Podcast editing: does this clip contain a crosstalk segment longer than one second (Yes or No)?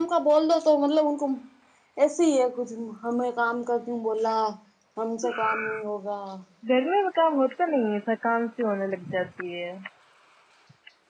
No